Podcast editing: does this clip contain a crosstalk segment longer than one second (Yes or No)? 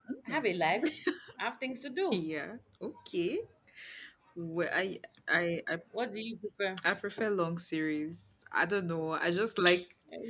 No